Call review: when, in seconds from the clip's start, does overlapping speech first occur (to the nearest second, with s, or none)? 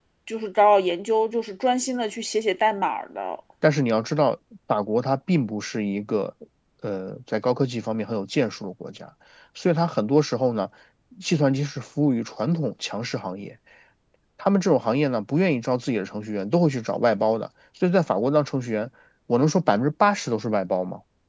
none